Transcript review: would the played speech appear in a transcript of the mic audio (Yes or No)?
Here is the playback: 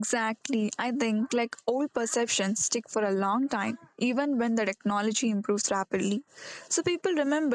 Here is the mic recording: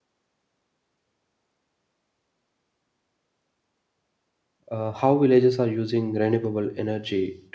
No